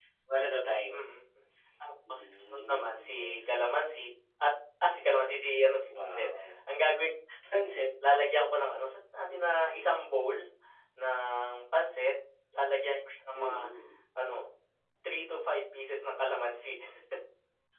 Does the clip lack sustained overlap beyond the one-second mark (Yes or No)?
No